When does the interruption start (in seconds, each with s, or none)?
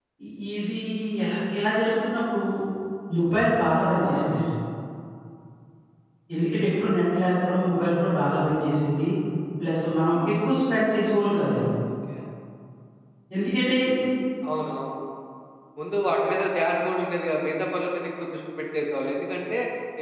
none